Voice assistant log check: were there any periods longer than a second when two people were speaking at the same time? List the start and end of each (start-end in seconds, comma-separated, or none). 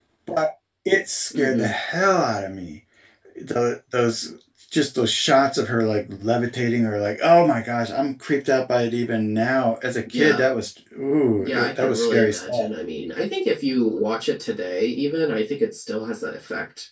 11.4-12.7